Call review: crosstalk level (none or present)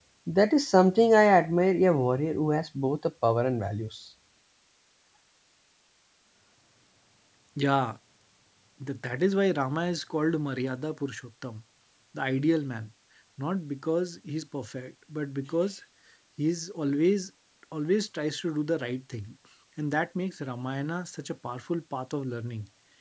none